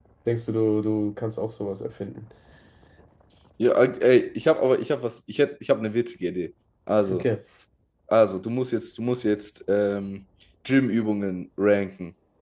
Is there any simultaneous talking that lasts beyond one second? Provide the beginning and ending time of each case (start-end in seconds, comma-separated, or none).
none